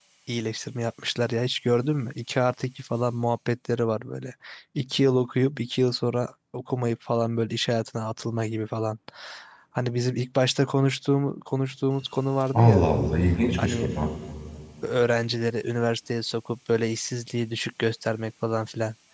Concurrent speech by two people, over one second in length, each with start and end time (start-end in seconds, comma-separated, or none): none